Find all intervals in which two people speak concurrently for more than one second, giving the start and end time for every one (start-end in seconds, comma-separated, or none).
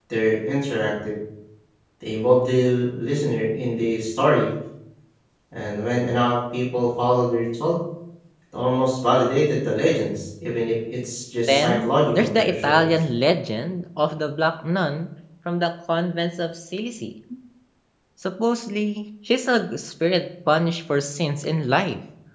11.5-12.9